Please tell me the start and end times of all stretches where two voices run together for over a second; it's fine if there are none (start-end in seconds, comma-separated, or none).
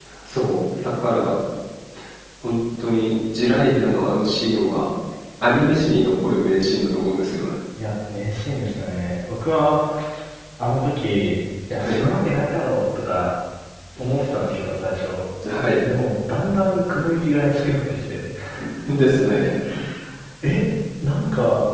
none